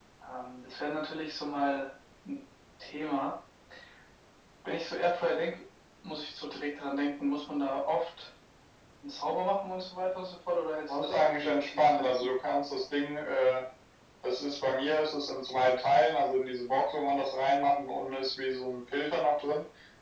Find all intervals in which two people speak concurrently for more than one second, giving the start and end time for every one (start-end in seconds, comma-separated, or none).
10.9-12.3